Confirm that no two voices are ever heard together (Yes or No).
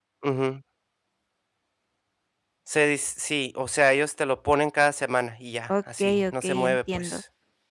No